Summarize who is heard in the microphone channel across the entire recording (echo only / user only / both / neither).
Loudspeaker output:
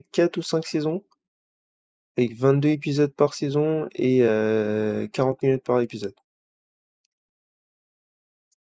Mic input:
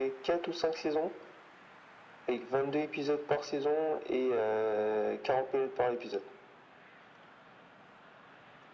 echo only